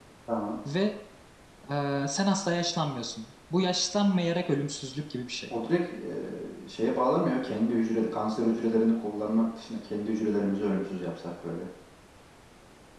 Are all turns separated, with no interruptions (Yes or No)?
Yes